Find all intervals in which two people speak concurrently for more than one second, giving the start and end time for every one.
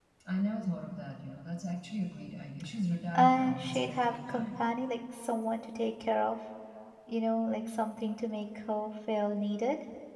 3.2-4.6

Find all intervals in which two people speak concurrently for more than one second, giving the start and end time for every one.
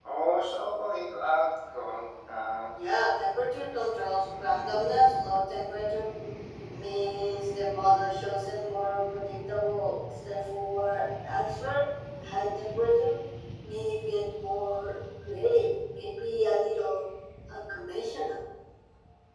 none

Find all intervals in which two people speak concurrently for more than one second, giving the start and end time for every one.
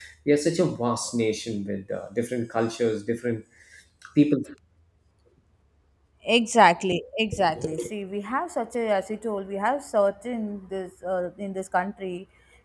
none

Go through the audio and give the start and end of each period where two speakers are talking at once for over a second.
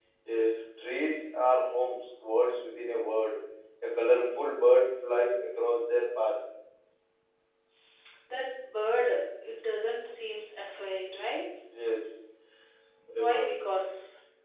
none

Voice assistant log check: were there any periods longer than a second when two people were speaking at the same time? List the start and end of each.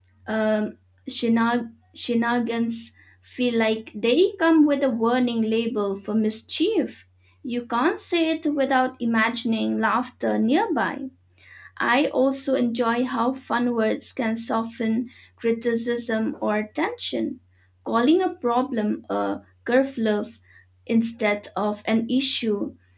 none

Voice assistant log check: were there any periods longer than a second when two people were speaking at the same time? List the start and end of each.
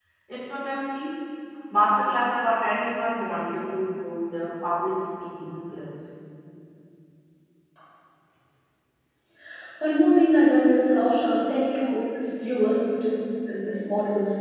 none

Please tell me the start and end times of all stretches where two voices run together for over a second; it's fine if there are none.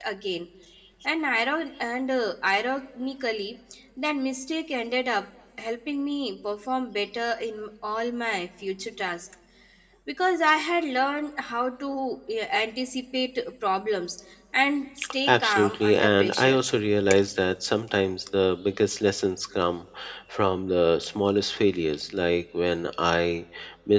15.3-16.6

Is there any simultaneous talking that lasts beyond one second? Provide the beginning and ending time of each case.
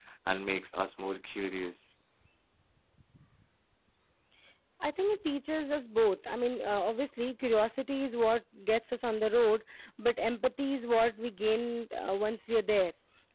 none

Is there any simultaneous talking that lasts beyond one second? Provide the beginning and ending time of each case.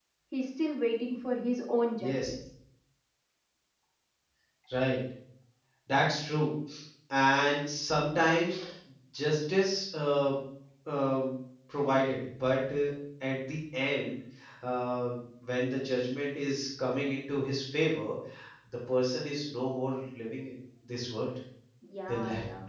none

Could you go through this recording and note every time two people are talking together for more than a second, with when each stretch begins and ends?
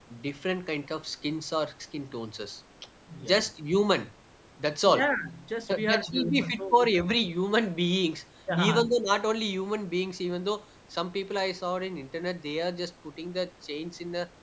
5.7-7.0

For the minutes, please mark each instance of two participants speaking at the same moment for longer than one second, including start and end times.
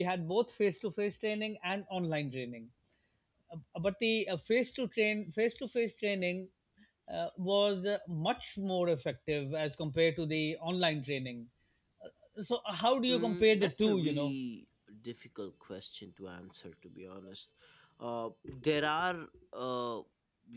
13.1-14.3

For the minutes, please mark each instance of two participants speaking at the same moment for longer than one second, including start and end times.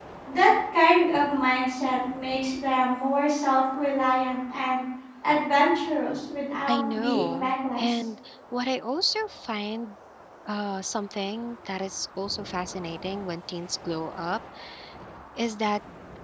6.7-7.9

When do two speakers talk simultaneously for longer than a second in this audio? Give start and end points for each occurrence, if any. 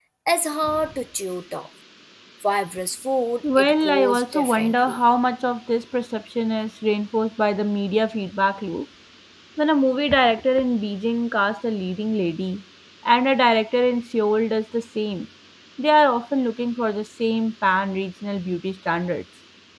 3.6-5.0

